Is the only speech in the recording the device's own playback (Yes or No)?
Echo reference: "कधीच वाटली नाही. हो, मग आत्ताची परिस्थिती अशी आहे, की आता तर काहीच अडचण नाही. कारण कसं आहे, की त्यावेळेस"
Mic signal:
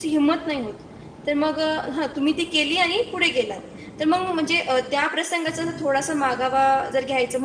No